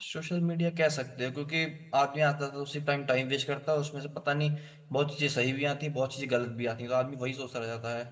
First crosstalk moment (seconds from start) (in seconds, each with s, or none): none